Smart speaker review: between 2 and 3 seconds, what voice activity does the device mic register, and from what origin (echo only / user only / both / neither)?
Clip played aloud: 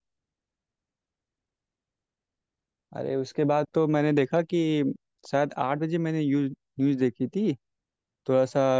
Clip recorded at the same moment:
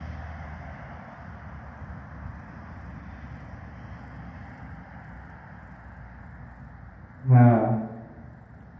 neither